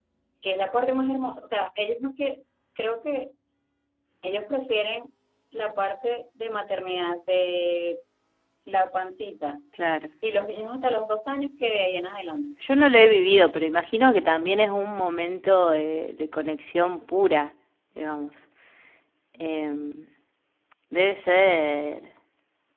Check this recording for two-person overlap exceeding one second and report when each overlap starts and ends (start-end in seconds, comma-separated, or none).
none